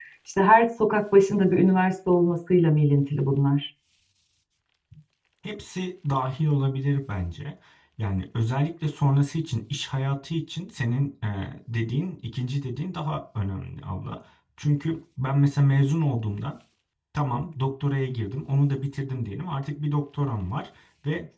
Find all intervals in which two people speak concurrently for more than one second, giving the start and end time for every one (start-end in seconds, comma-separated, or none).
none